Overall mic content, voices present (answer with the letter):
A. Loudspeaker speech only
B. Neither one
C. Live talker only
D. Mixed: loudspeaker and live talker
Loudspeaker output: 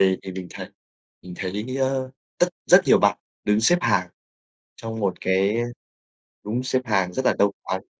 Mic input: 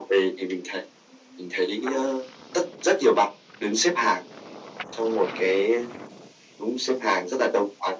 A